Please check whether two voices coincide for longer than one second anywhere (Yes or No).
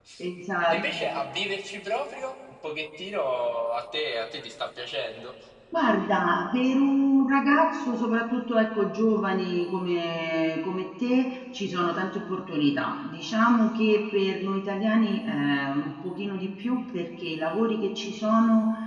No